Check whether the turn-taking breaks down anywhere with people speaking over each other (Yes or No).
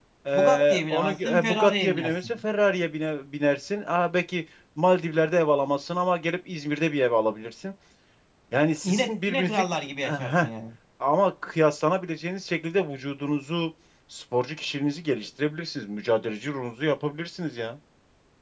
Yes